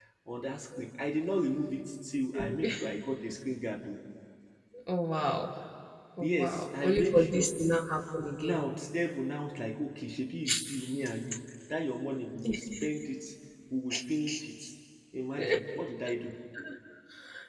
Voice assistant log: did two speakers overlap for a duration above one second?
Yes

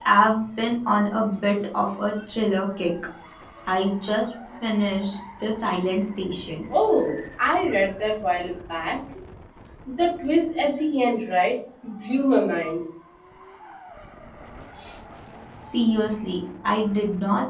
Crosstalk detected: No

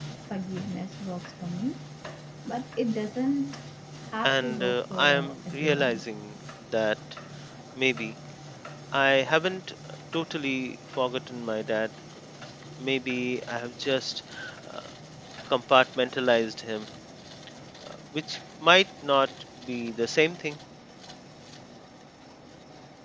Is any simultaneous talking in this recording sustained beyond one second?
Yes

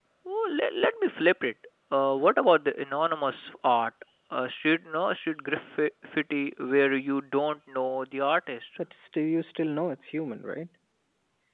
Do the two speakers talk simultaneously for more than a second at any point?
No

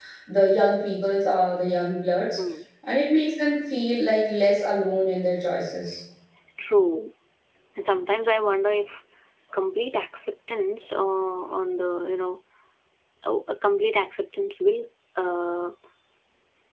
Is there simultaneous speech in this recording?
No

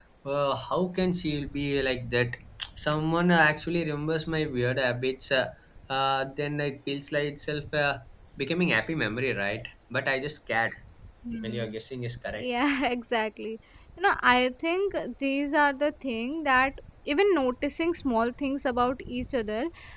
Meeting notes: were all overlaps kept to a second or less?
Yes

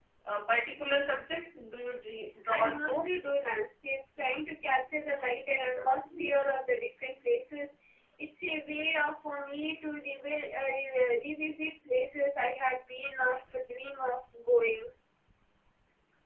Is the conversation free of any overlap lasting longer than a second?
Yes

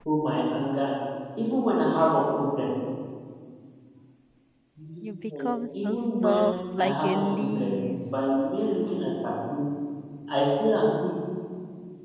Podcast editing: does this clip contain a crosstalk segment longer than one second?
Yes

